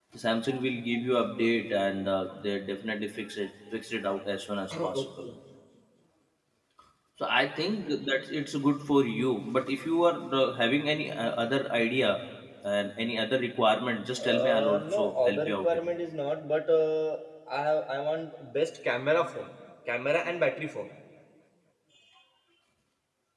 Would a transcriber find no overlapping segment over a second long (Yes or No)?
No